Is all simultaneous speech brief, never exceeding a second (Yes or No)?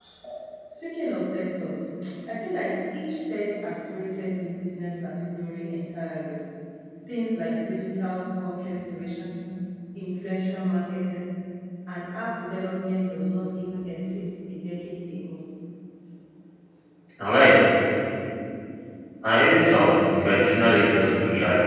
Yes